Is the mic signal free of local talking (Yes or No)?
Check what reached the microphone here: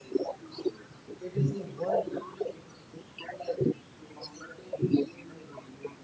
No